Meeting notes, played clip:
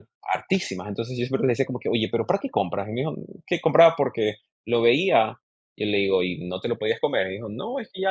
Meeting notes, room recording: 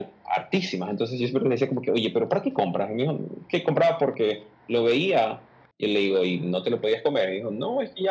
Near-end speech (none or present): none